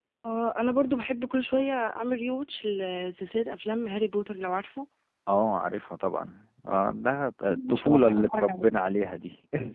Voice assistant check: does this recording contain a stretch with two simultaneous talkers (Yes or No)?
Yes